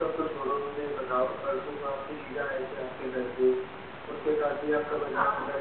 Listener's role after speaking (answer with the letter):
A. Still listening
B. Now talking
A